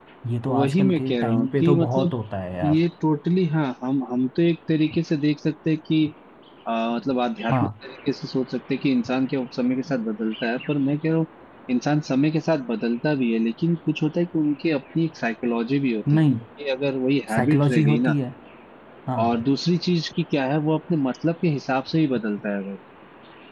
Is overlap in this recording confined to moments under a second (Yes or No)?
No